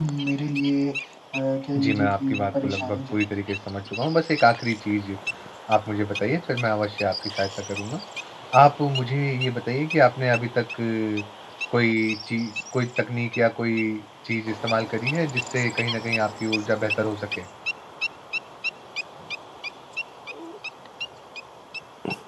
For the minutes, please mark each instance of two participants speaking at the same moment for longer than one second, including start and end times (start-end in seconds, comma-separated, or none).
1.8-3.2